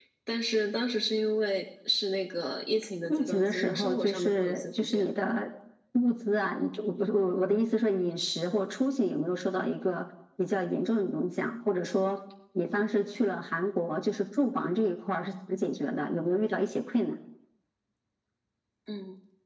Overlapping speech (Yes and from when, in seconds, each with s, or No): Yes, from 3.1 s